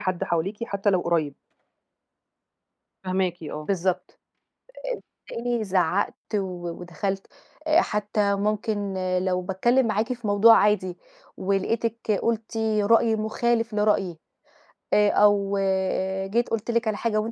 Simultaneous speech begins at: none

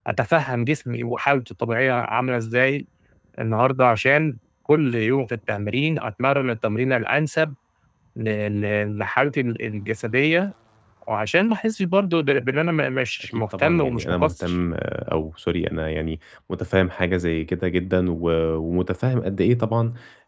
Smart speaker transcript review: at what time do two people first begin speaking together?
13.3 s

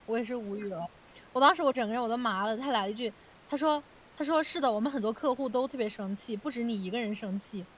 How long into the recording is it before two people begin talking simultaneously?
none

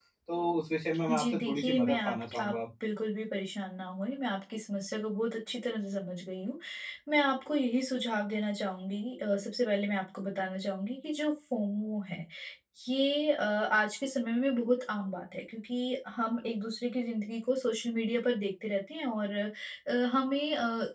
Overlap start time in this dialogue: 1.1 s

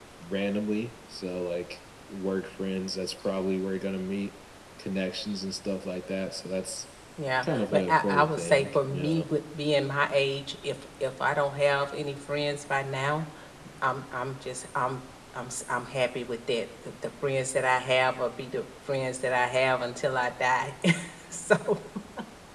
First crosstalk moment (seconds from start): 7.4 s

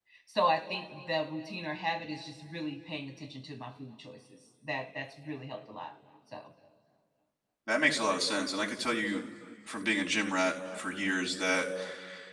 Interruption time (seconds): none

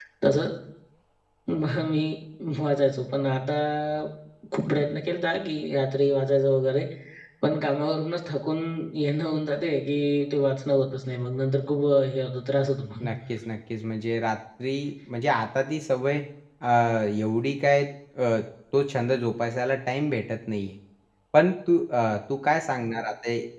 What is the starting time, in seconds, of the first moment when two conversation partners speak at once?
none

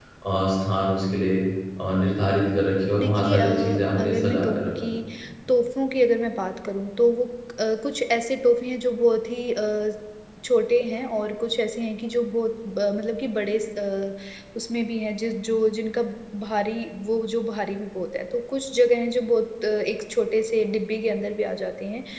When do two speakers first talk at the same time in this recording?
3.0 s

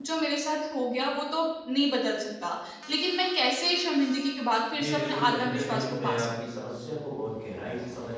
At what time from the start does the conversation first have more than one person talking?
4.7 s

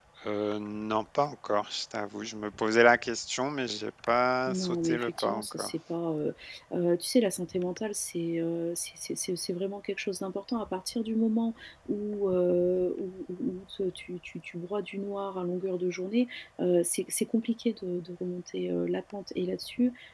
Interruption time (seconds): 4.5 s

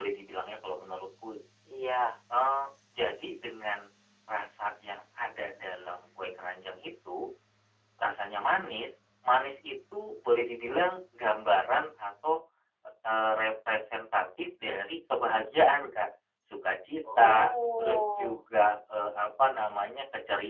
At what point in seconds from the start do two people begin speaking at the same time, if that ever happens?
17.1 s

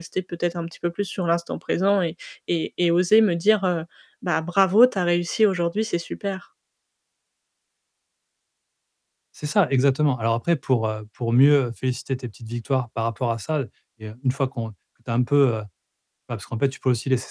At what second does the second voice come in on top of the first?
none

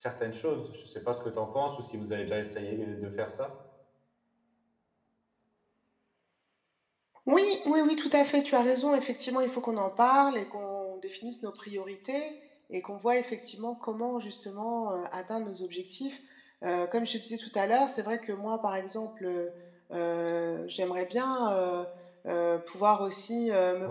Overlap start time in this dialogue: none

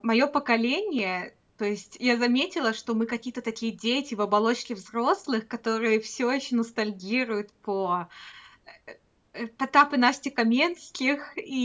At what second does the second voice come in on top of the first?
none

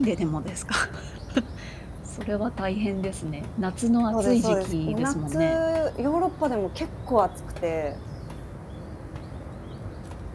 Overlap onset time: 4.1 s

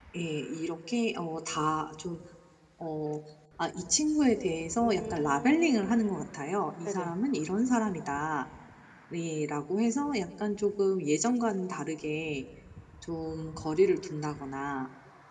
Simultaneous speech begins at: 4.8 s

